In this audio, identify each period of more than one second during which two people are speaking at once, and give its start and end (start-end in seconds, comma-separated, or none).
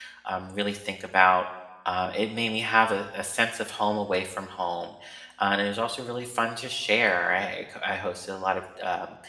none